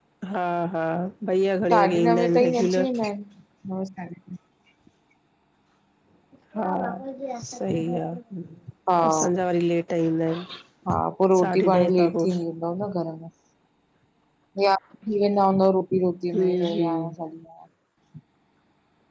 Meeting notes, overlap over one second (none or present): present